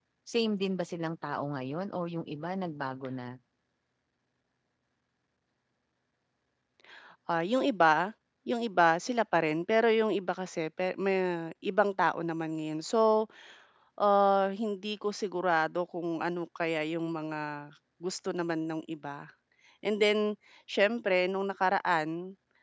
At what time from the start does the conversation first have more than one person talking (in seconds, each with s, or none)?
none